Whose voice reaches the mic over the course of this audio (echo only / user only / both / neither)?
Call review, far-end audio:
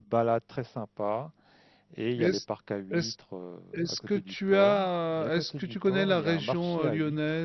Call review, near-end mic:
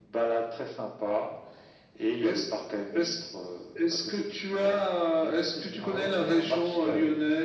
both